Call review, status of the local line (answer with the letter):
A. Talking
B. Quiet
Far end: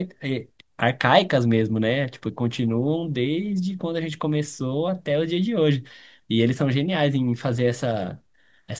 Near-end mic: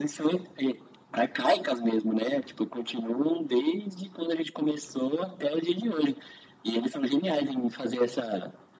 B